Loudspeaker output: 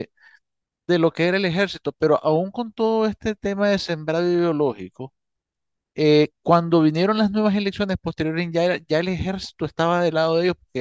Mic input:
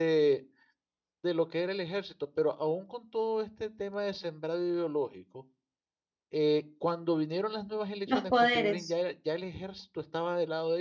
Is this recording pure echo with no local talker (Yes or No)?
No